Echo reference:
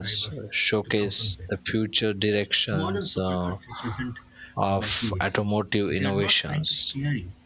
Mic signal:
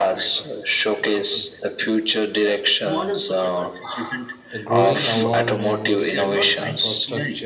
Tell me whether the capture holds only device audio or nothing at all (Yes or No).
No